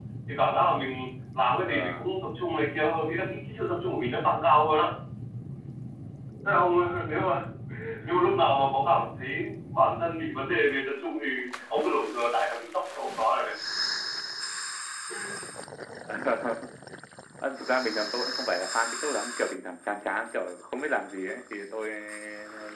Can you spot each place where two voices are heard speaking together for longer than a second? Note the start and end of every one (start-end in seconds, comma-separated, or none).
none